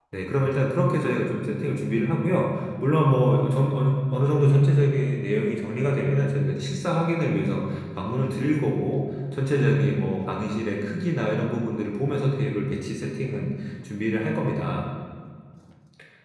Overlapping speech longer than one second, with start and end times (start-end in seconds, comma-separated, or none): none